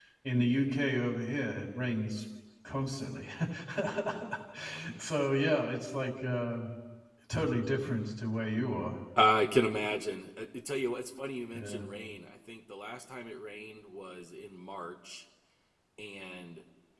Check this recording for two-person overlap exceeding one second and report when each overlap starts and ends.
none

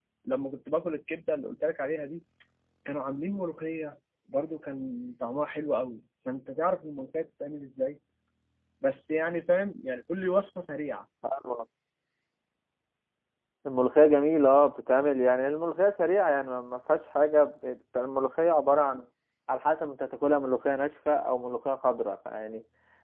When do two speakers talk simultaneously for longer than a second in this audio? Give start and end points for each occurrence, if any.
none

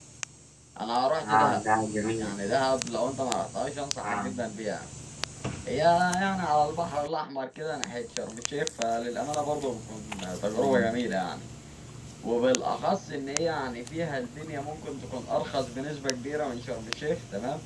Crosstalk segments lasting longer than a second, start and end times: none

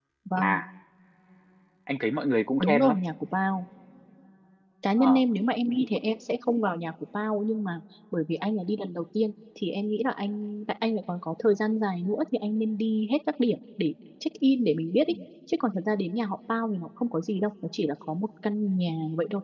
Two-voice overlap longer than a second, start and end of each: none

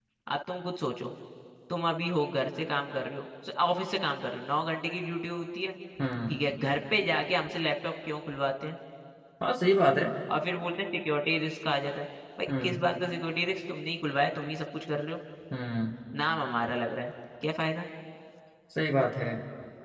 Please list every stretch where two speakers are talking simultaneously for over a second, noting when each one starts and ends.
none

